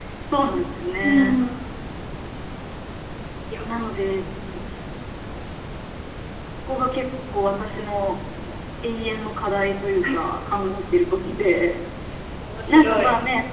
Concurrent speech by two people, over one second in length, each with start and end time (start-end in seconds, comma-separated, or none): none